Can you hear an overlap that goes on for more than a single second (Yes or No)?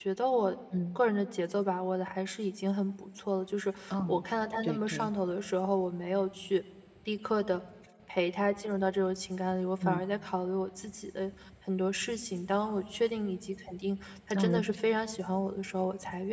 No